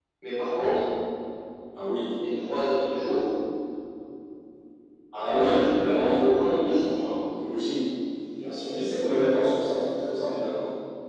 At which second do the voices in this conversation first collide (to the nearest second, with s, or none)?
5 s